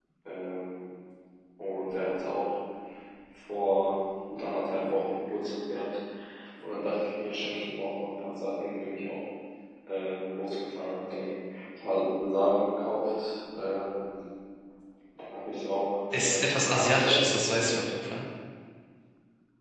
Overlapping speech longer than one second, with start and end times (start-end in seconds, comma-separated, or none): 16.2-17.9